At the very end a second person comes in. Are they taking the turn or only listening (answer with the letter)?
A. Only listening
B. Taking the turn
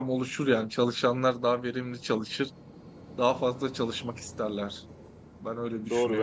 B